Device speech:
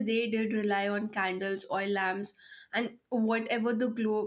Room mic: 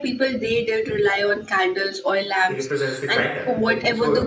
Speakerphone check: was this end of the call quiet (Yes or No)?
No